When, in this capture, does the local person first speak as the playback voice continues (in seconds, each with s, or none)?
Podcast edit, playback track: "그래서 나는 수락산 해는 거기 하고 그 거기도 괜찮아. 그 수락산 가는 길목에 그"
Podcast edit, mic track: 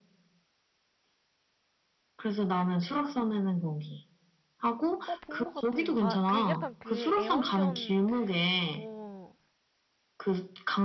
5.0 s